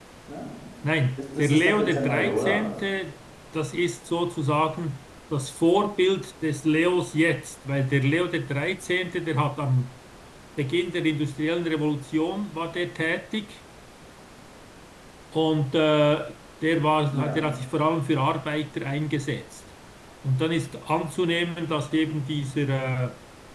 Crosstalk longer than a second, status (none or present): present